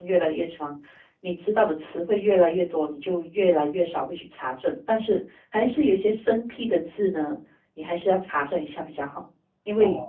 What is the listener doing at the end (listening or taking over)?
listening